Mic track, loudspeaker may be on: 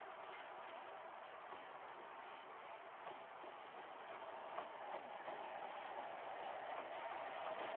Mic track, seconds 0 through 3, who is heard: neither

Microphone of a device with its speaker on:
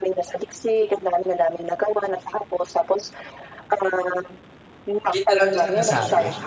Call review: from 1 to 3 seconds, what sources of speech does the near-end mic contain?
echo only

